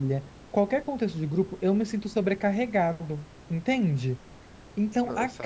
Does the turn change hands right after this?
No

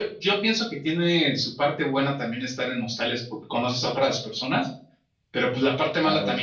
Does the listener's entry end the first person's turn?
No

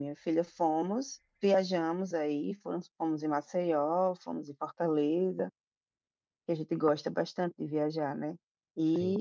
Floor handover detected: No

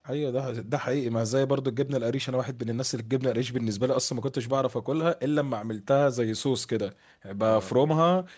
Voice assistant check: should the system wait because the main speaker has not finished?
Yes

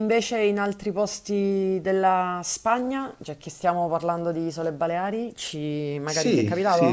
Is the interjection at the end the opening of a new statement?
Yes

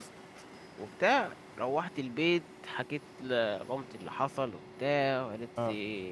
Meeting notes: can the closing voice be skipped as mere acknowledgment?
Yes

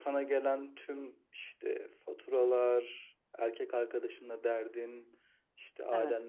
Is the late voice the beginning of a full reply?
No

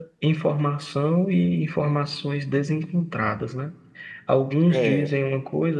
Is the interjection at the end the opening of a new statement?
No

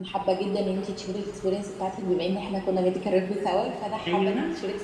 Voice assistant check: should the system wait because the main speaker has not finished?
Yes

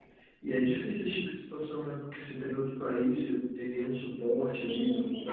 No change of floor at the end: No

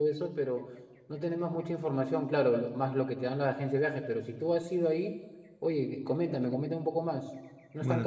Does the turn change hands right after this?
Yes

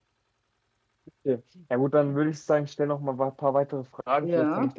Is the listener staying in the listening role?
Yes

